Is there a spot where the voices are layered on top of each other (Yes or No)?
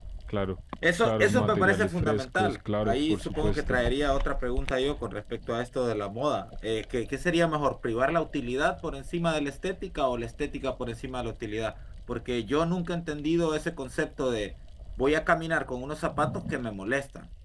Yes